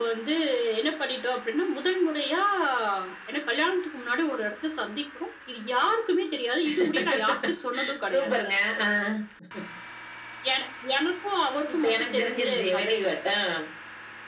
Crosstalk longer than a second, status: present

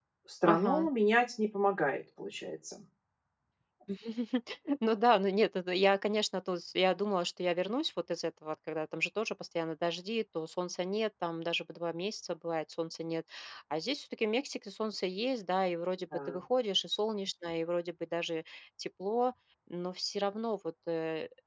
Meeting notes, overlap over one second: none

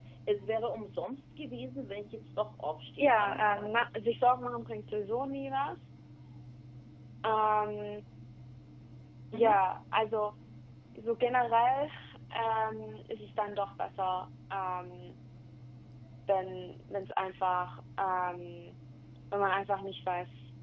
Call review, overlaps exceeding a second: present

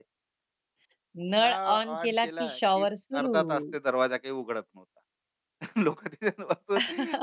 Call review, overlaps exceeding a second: present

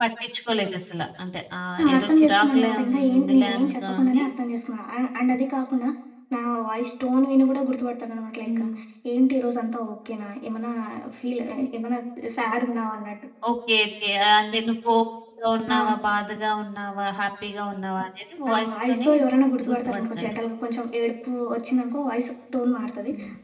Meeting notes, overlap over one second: present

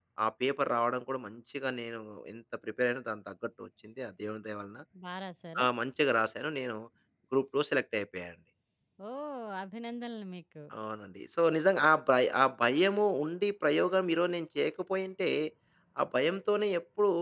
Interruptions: none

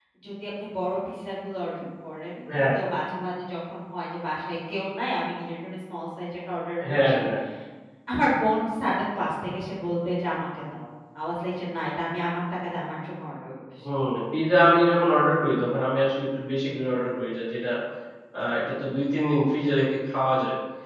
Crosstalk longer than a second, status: none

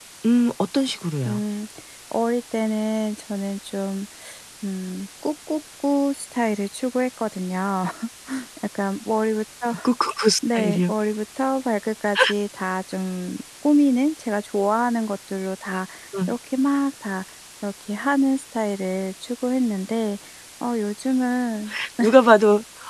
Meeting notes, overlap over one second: none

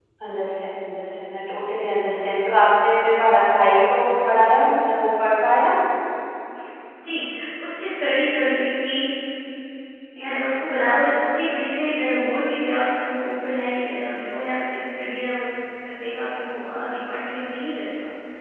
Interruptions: none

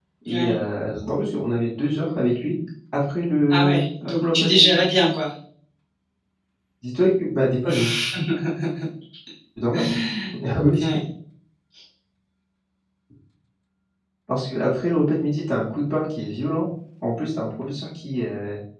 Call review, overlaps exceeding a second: present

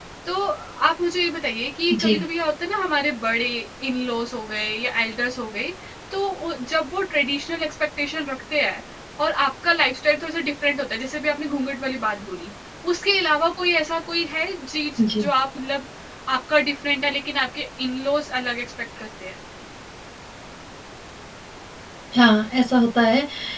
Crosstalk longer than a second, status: none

